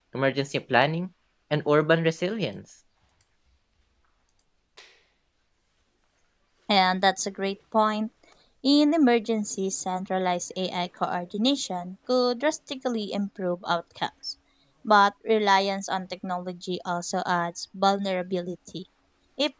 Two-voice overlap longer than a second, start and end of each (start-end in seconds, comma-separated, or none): none